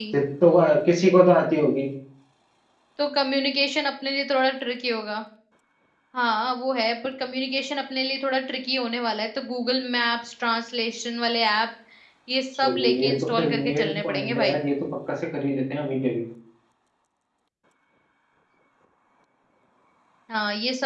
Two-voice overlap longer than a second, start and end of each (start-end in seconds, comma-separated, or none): 12.5-14.6